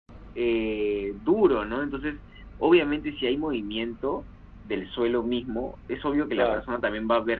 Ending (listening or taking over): listening